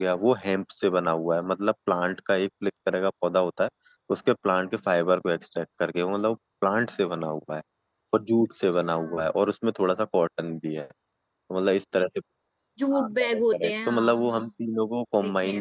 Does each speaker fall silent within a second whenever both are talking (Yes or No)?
No